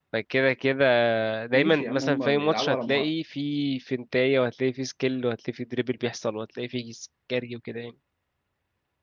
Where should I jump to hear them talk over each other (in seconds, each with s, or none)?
1.5 s